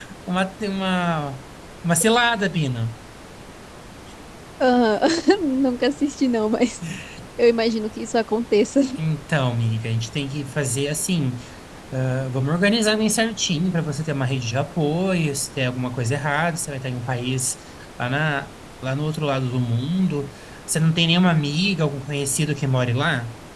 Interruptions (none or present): none